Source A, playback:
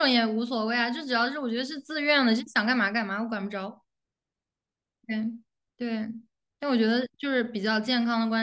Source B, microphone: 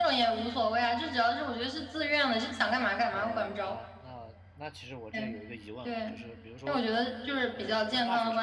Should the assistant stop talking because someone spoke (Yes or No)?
Yes